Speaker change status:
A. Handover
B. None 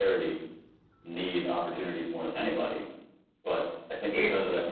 B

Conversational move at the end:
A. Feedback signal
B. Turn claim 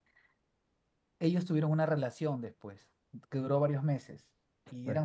A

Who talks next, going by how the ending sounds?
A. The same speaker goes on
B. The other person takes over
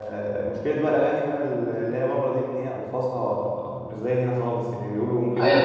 B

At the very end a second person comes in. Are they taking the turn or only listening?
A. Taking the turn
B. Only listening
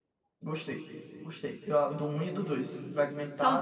B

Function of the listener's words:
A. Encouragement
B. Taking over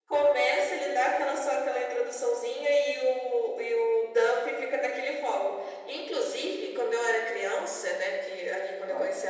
A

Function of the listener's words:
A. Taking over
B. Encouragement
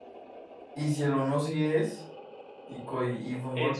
A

